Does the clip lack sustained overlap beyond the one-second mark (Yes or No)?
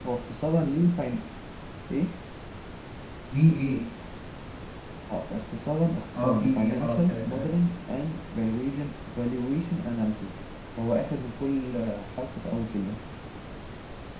No